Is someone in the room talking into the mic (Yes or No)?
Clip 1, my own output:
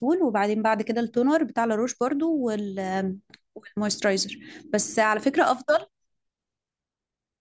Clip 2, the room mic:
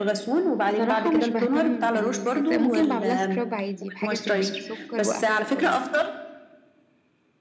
Yes